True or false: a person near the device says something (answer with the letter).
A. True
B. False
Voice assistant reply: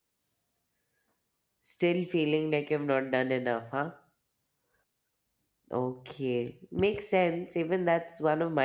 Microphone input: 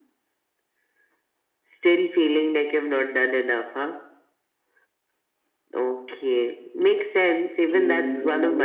A